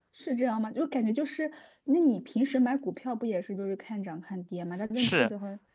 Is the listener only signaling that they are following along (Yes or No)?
No